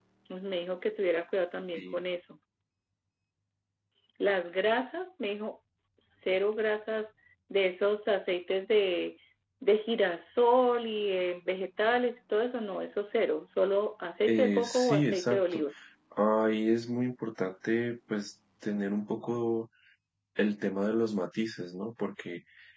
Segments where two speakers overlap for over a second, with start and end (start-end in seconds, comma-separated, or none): 14.3-15.6